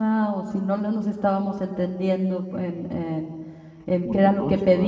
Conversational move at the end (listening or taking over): listening